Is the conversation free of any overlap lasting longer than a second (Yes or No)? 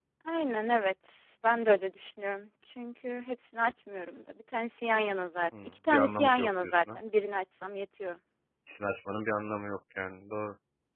No